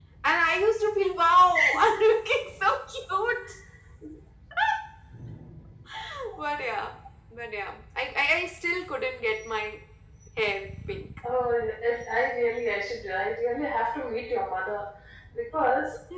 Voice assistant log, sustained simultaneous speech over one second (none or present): none